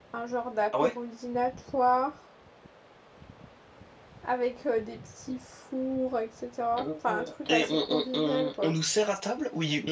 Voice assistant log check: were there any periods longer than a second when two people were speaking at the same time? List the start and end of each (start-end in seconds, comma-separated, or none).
6.8-8.8